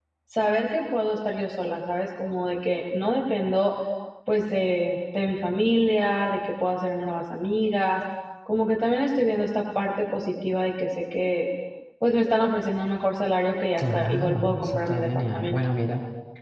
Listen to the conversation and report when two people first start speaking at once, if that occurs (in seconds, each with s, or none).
13.8 s